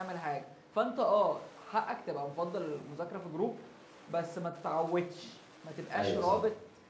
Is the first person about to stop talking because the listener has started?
No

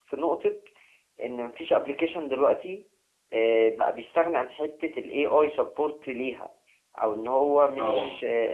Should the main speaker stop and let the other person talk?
No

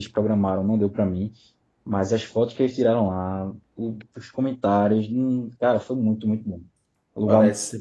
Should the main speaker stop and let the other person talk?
Yes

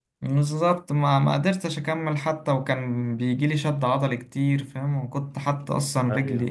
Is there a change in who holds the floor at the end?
No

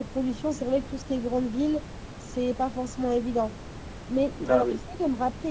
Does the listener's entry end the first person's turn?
No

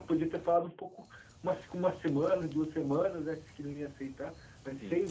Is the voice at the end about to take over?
No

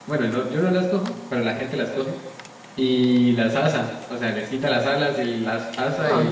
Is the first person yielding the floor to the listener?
Yes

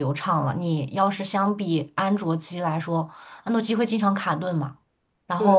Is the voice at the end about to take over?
Yes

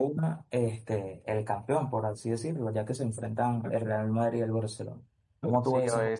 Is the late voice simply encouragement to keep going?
No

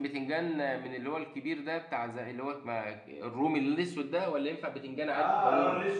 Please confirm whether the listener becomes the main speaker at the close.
Yes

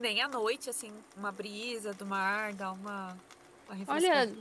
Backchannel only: No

